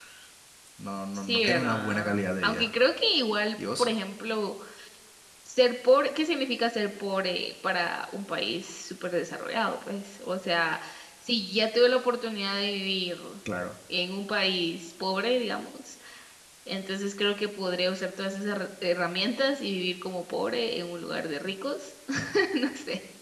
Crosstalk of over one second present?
Yes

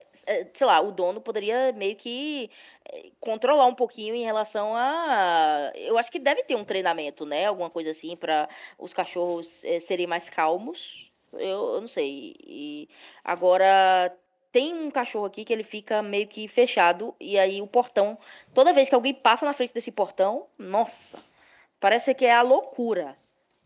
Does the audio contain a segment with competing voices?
No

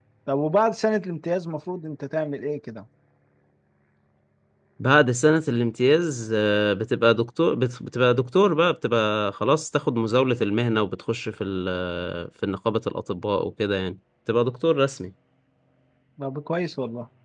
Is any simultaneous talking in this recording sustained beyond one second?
No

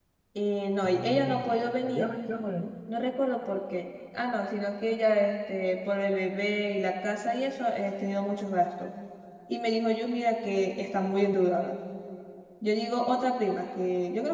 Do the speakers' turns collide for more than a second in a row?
Yes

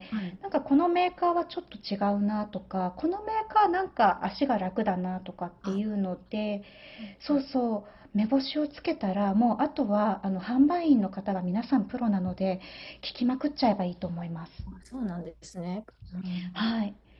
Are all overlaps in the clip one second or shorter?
Yes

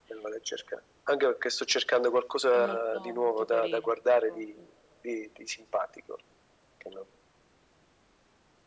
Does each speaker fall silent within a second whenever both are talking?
No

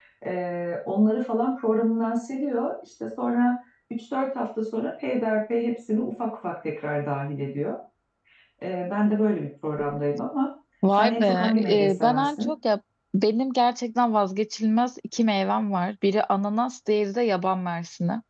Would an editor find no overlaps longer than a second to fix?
No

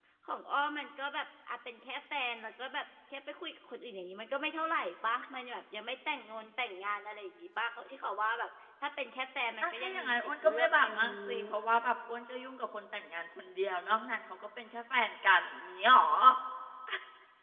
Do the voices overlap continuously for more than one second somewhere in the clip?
Yes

